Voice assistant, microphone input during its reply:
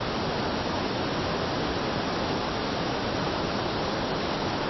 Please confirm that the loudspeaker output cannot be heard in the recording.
Yes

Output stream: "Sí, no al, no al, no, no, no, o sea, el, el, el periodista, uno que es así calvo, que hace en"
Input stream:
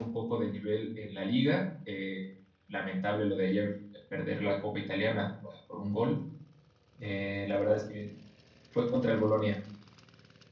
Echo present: No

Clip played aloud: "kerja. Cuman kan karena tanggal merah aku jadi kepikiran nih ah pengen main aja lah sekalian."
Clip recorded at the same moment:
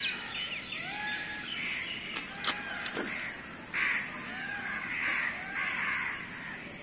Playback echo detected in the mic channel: No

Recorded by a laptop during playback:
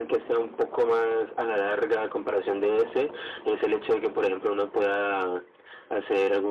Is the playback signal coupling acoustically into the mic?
Yes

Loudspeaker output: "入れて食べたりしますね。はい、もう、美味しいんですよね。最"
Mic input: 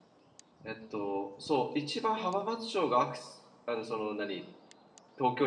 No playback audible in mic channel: Yes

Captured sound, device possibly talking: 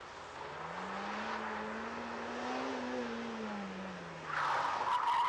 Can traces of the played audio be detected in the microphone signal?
No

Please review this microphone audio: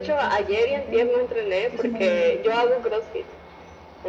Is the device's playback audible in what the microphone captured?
Yes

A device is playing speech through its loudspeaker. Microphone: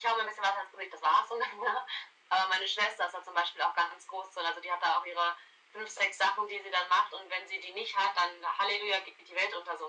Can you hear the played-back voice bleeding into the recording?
Yes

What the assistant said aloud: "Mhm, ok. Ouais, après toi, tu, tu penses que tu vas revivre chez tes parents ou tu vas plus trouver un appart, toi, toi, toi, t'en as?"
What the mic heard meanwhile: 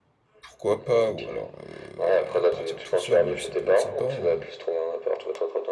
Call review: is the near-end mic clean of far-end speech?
No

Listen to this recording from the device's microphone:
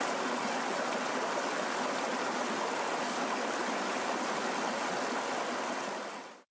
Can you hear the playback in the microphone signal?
No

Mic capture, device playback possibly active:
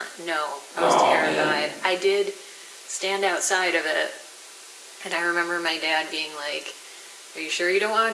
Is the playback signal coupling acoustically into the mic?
Yes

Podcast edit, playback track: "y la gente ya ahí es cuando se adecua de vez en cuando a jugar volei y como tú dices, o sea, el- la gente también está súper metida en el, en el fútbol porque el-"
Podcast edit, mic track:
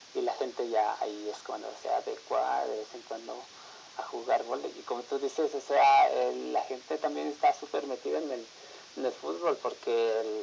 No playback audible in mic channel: No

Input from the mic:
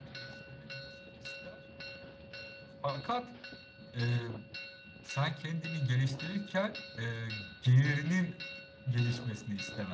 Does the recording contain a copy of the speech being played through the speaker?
No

